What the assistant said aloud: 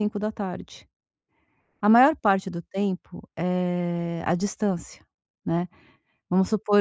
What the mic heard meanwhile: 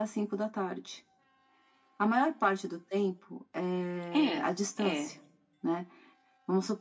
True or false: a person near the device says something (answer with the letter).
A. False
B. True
B